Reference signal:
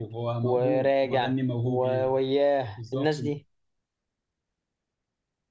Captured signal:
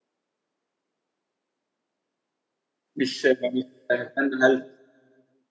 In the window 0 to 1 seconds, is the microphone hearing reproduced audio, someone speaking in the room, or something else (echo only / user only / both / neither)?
neither